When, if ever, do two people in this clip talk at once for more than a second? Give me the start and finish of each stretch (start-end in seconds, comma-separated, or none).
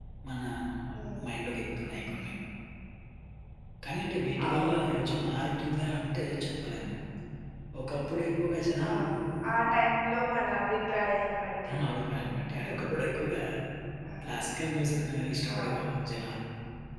none